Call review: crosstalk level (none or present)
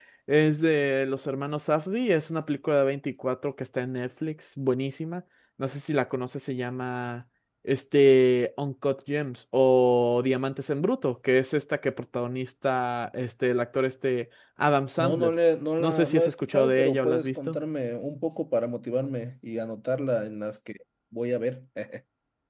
present